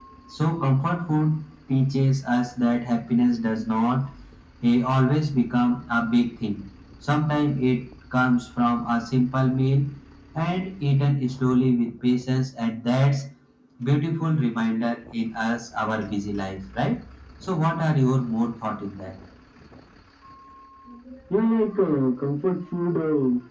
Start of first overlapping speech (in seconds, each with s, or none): none